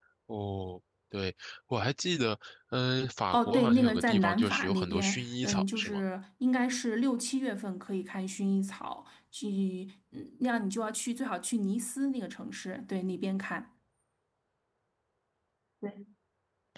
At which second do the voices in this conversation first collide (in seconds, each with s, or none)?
3.3 s